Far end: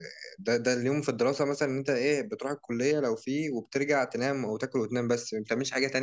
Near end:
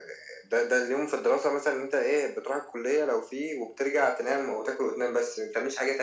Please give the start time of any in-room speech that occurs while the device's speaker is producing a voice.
none

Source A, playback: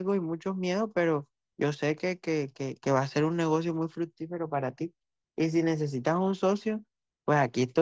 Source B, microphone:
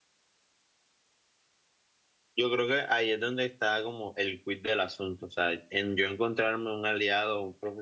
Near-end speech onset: 2 s

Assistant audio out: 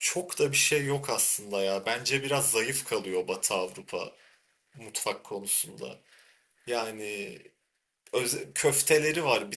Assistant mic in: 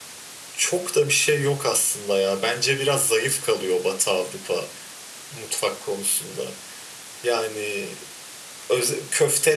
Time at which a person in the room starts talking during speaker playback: none

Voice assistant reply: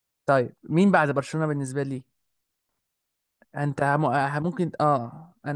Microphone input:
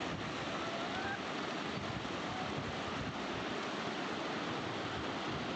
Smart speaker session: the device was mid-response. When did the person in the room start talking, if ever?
none

